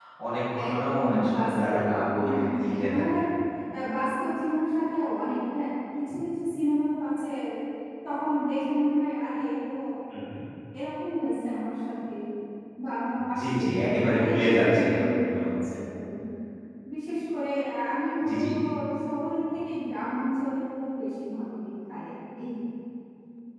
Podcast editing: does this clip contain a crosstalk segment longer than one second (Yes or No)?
Yes